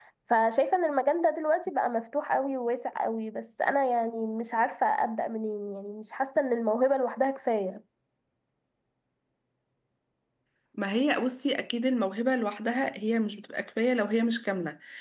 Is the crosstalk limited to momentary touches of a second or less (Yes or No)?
Yes